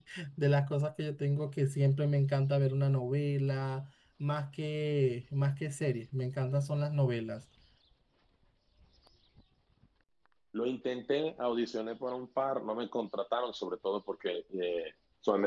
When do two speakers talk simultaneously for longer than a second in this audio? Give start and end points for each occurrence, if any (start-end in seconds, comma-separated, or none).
none